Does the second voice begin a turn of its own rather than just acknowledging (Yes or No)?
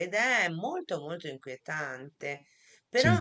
No